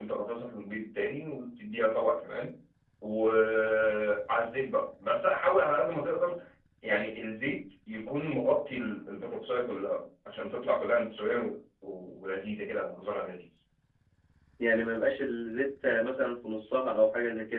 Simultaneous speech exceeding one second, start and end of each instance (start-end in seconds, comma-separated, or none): none